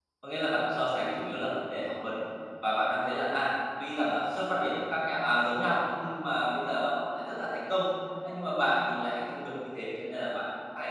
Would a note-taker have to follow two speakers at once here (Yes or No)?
No